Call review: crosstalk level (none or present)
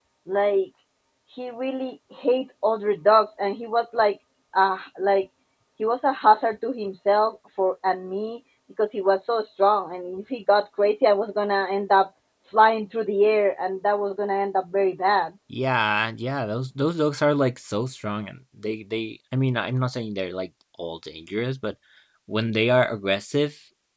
none